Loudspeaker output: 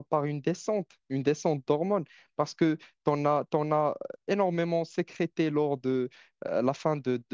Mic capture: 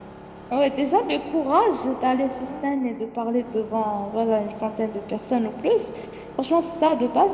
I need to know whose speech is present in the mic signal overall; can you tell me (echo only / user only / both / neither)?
user only